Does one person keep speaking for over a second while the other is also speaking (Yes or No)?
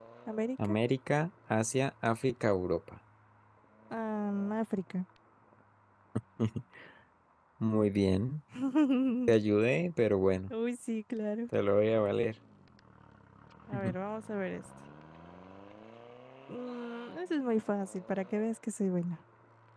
No